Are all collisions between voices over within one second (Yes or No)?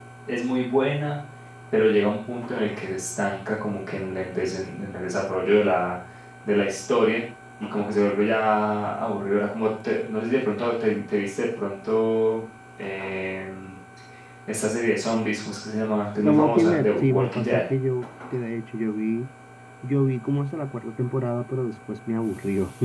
No